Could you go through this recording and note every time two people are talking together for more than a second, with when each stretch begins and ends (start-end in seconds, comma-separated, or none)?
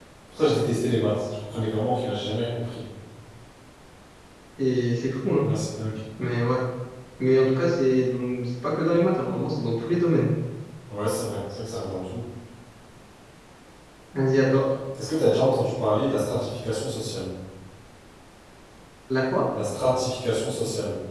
none